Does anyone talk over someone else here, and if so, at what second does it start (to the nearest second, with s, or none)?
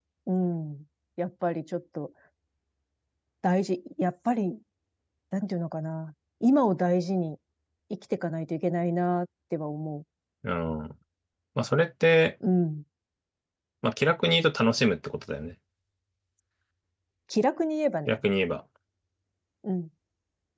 none